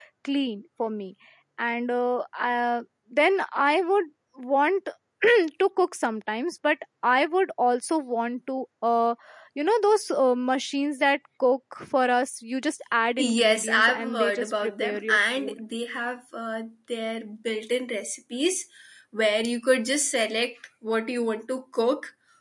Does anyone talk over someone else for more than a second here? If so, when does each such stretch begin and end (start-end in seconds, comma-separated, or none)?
13.2-15.6